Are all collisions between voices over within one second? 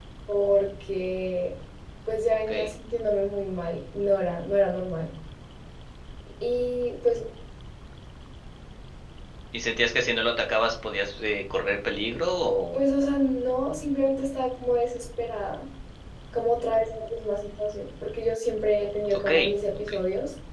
Yes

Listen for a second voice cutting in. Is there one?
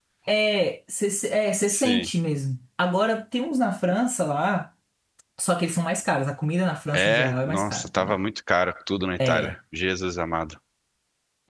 Yes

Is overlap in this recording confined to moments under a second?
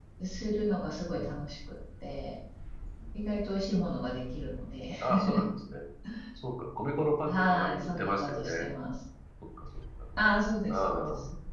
No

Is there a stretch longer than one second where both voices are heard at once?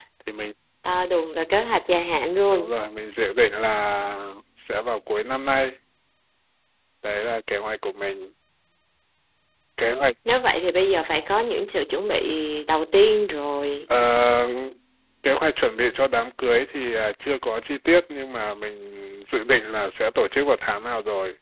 No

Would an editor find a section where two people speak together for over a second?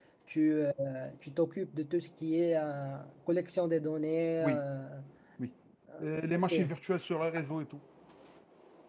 No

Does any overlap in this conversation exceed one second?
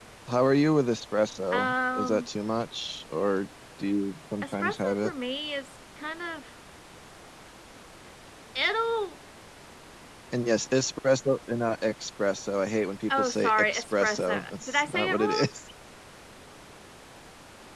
Yes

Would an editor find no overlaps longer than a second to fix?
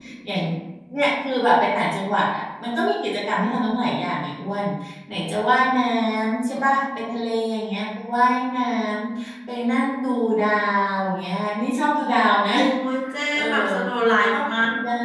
Yes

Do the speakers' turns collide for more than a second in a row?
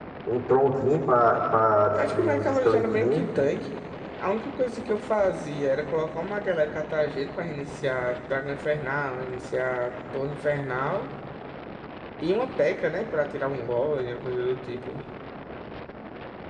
Yes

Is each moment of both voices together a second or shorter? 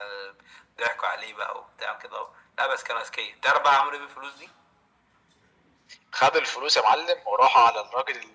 Yes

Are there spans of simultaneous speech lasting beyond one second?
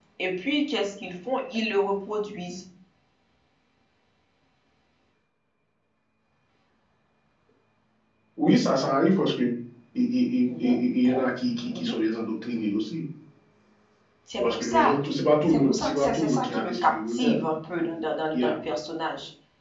Yes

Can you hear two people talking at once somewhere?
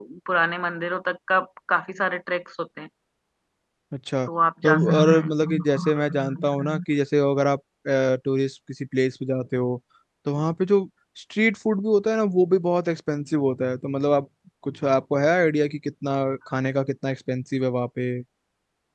Yes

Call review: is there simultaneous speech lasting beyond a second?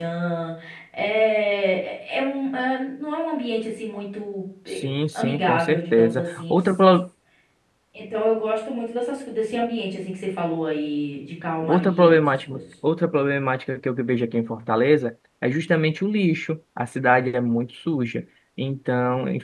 Yes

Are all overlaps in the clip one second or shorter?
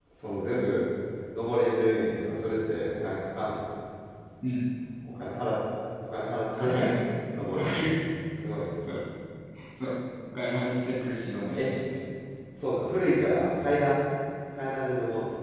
Yes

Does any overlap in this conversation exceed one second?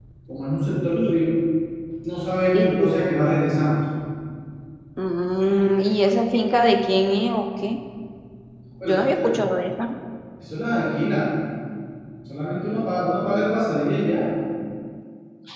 No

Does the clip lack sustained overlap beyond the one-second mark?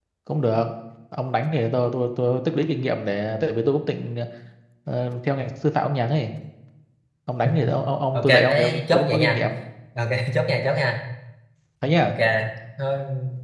No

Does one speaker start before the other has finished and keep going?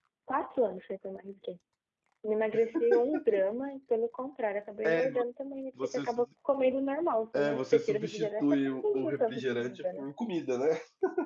Yes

